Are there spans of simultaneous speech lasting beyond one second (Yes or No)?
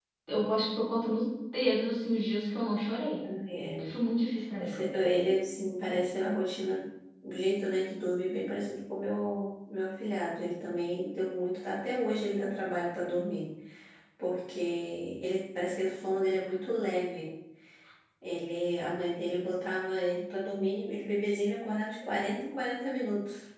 No